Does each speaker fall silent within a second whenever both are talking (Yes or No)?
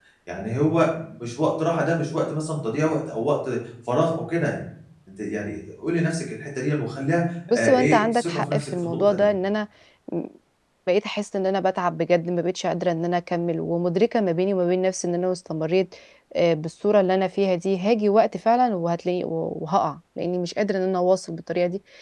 No